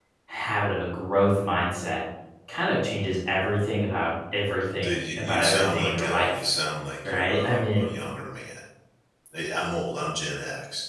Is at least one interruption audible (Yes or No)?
Yes